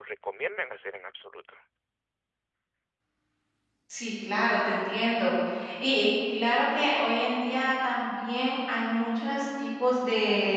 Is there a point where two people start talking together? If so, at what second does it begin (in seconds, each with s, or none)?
none